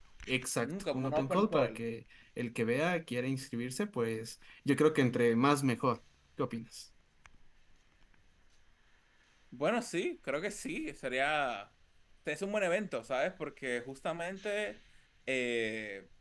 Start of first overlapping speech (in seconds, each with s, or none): 0.6 s